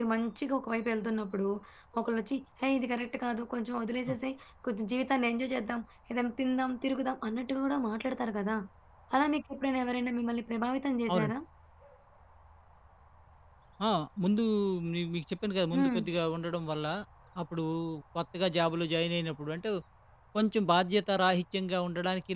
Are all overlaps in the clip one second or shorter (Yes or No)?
Yes